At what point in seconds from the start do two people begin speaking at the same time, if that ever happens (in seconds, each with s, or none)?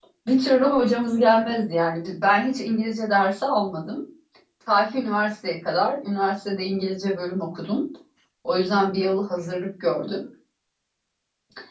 none